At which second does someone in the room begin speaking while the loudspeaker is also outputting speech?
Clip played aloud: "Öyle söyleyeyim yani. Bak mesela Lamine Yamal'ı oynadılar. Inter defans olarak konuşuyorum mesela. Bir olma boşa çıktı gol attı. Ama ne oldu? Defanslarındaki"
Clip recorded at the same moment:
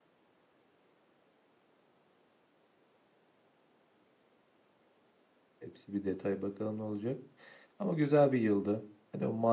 5.6 s

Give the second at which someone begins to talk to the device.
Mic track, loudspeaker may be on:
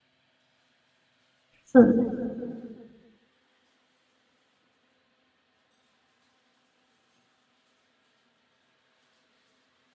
1.6 s

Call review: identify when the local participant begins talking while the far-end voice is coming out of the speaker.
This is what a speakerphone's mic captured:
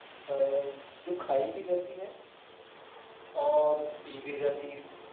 none

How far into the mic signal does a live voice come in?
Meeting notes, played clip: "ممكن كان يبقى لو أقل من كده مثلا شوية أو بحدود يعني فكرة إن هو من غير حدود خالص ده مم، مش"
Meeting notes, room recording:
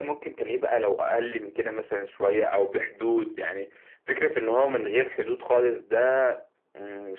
none

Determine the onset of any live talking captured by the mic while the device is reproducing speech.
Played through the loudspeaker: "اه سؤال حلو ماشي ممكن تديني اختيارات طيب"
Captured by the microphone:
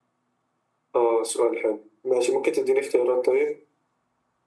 none

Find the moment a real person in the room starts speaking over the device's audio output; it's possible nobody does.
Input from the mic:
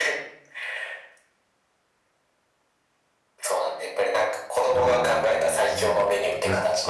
4.7 s

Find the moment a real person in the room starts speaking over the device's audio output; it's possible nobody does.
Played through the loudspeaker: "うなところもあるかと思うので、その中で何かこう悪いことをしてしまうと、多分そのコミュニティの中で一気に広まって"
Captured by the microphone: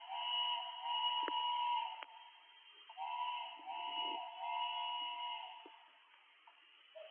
none

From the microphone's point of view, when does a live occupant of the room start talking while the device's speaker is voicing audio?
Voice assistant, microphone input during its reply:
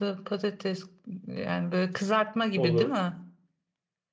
2.5 s

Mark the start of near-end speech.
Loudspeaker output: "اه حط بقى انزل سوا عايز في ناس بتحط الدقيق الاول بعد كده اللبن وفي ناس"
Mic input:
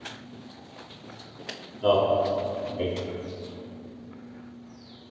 1.8 s

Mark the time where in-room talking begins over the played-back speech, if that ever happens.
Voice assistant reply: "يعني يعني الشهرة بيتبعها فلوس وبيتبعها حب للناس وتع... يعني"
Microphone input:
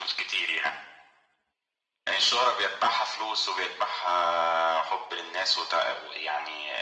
none

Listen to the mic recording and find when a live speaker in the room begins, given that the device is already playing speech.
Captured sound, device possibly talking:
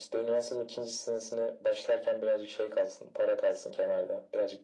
none

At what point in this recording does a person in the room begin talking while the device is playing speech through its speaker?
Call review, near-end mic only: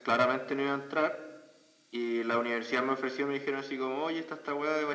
none

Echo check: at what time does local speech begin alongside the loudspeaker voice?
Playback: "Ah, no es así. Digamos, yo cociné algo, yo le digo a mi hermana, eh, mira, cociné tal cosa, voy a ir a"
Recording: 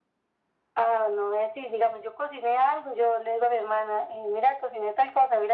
none

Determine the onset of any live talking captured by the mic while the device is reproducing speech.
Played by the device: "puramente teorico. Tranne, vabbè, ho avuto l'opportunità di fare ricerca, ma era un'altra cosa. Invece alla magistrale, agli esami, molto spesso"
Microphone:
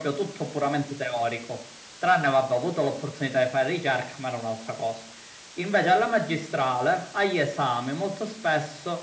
none

